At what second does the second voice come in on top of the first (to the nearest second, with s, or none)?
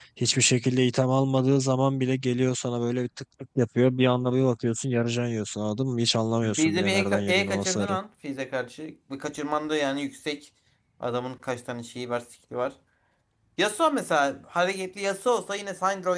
6 s